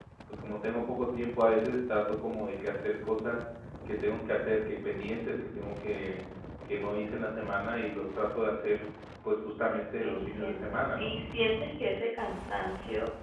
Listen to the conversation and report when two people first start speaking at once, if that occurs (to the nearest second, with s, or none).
10 s